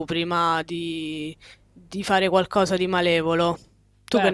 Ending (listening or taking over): taking over